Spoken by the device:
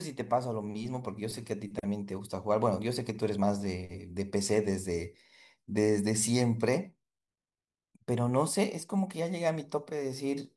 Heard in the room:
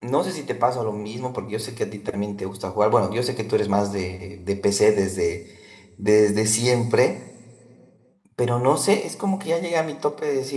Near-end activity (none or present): none